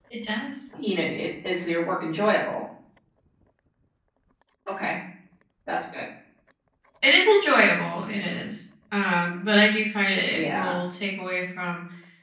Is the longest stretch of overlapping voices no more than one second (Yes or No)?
Yes